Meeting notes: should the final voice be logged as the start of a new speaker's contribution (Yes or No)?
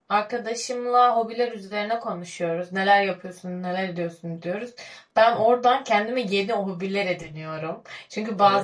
No